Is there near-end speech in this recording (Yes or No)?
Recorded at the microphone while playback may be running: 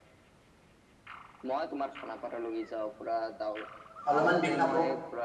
Yes